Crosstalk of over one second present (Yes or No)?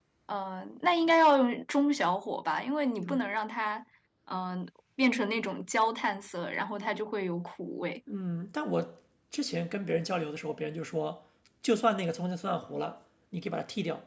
No